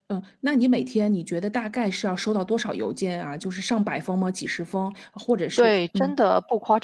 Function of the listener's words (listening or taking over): taking over